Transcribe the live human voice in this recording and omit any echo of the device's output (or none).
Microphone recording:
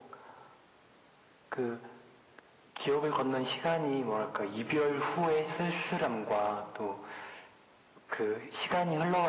none